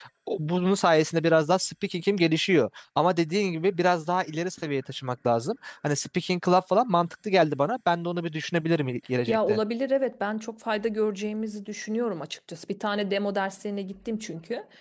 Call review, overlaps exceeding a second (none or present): none